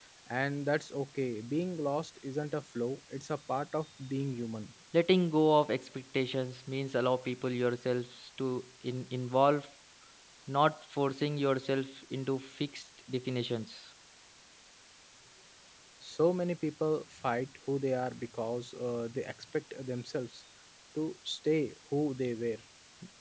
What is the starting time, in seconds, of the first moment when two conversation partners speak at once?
none

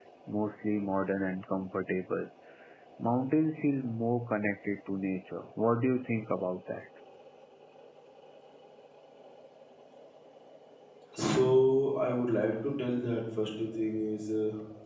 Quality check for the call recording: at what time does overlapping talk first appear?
none

